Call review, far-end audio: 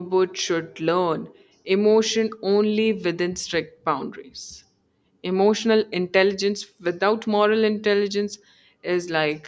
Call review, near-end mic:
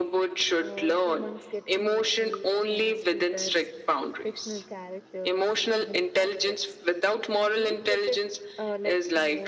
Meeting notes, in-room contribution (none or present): present